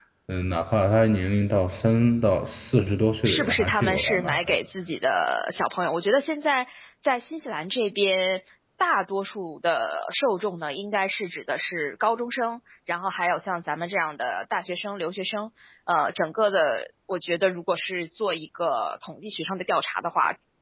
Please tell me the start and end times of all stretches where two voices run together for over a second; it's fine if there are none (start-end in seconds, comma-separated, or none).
3.2-4.5